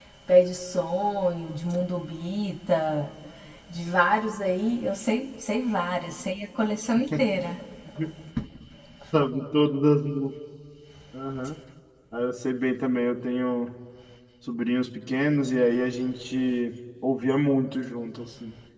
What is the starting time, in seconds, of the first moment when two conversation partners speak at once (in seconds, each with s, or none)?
none